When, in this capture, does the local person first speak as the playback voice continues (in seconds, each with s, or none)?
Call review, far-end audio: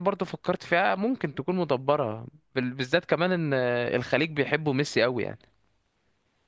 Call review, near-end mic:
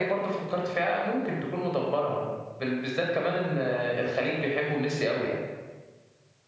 none